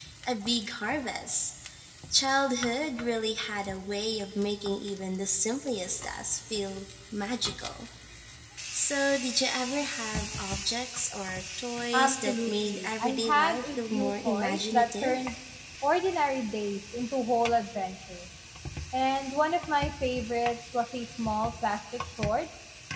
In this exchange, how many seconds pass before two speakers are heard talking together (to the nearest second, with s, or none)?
12 s